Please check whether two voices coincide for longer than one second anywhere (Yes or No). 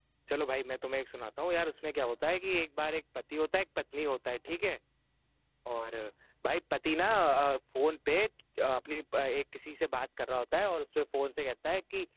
No